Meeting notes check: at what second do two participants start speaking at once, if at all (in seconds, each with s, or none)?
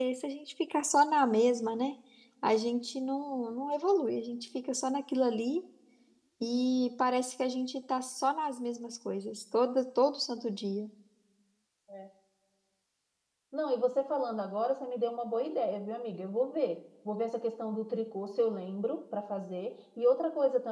none